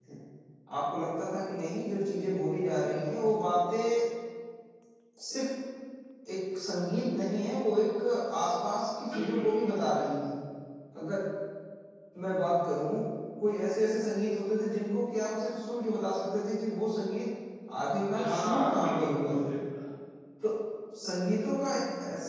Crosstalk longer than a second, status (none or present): present